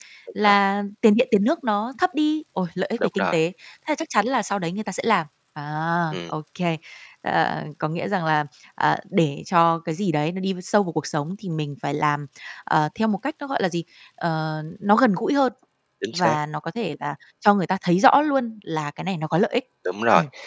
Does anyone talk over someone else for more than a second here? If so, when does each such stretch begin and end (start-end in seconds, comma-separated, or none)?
none